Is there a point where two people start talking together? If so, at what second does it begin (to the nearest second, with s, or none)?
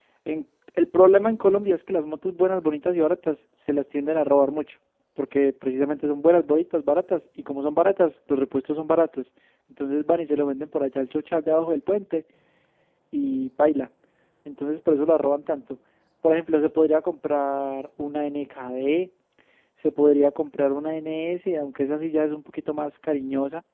none